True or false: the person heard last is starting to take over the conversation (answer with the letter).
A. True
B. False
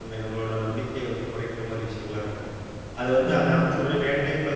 B